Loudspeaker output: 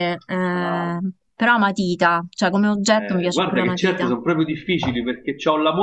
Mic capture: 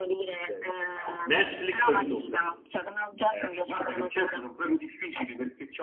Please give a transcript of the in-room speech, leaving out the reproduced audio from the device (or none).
Ok. Netflix o YouTube?